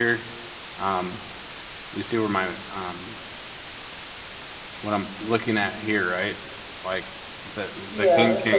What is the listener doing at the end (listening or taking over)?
taking over